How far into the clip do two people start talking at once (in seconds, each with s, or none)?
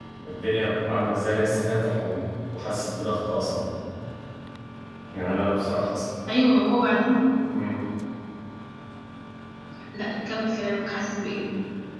none